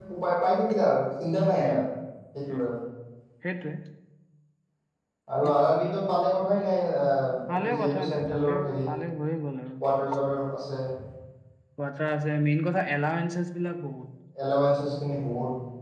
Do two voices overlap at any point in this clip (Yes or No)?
Yes